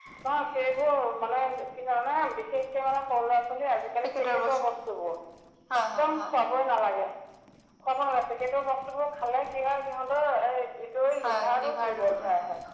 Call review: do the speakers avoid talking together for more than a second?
No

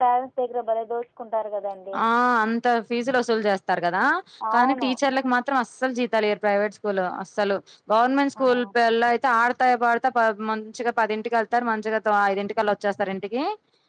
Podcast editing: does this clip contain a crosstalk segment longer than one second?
No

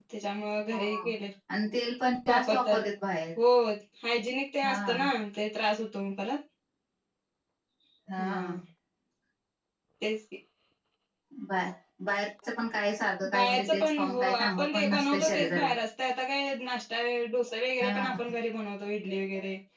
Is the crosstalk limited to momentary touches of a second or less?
No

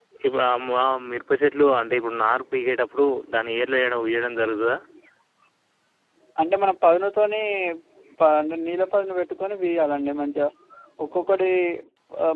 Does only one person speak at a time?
Yes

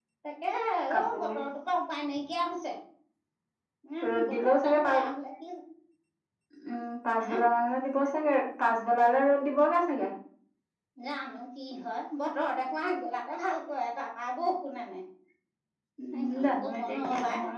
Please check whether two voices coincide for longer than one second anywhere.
Yes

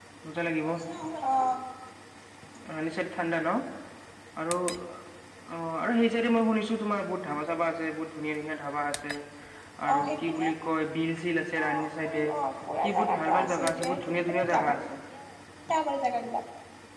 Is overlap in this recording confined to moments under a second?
No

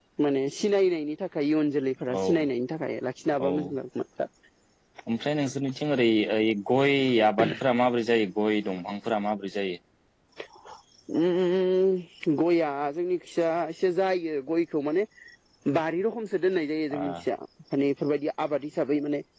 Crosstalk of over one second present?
No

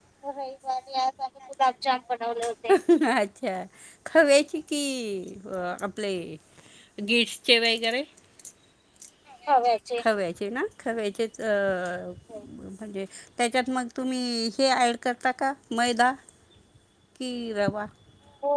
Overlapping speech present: No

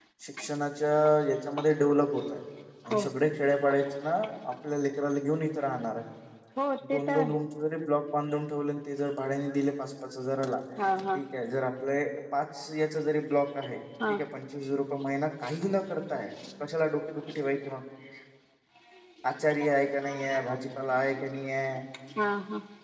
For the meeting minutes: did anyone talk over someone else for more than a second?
No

